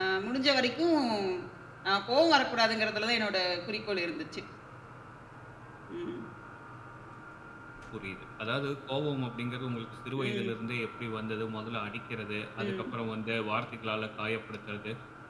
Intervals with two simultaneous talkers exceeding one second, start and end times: none

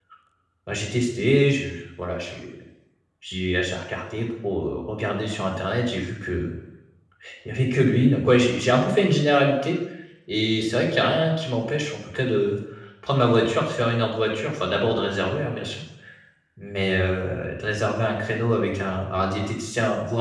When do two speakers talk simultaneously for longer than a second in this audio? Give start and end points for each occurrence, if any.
none

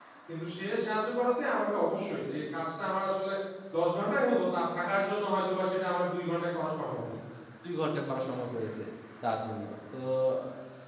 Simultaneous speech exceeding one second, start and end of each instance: none

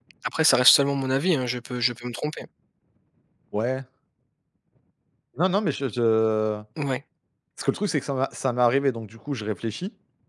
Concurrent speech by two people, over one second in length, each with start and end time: none

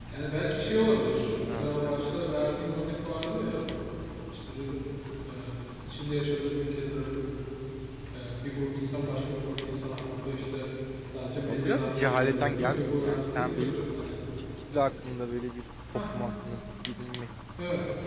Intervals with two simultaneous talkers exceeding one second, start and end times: 11.4-13.8

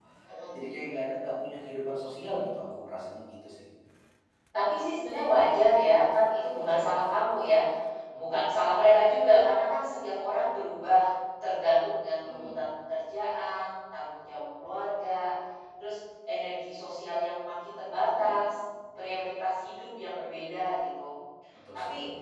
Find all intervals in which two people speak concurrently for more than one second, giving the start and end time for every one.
none

